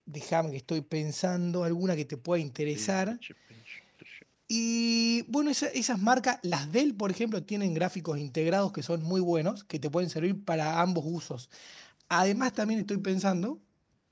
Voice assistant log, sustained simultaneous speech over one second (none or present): none